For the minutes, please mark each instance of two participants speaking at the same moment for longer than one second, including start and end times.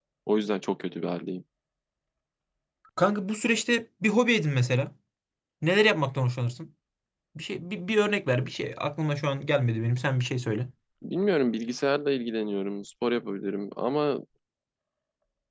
none

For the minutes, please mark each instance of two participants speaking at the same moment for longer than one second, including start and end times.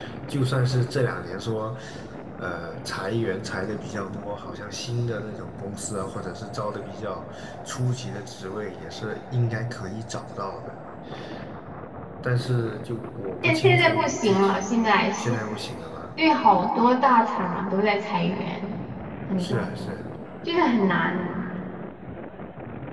13.4-14.7

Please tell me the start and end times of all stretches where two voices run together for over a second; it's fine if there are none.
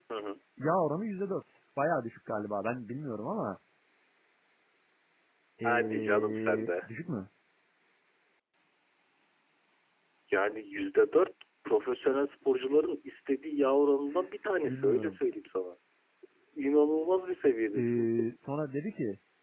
5.6-6.8

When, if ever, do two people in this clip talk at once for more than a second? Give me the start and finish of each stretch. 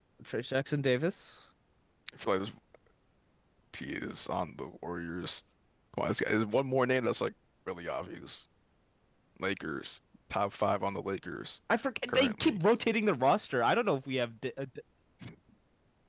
none

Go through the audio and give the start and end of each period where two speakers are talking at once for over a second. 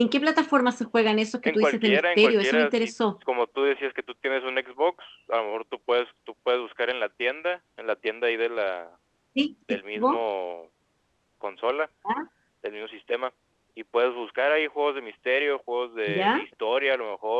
1.4-3.2

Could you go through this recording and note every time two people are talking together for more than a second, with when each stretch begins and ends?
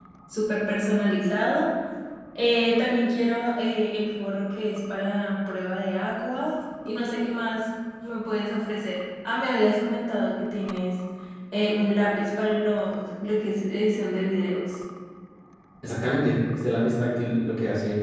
none

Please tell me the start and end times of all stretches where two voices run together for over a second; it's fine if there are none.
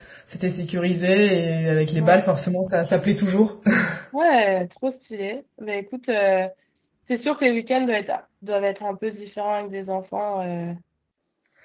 none

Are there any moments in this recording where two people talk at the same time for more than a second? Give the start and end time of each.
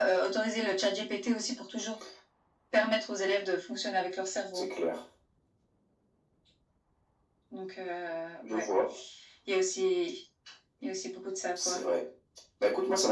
none

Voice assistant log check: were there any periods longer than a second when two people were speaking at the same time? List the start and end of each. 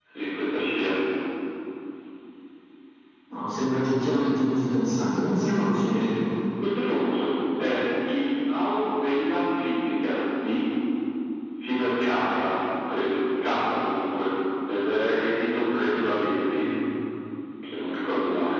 none

